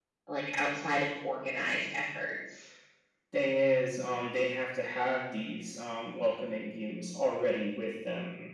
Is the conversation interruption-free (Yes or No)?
Yes